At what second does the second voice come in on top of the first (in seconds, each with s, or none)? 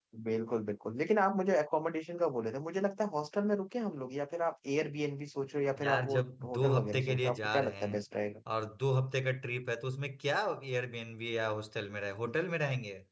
5.8 s